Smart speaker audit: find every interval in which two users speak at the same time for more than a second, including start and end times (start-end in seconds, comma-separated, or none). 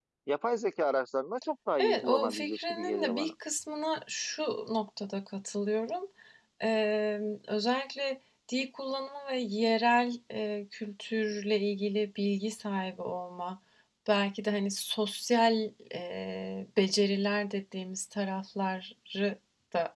1.8-3.3